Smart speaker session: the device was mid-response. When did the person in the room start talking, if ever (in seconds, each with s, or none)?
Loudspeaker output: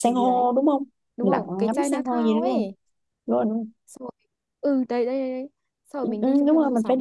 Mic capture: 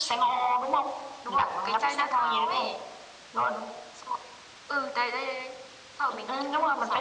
none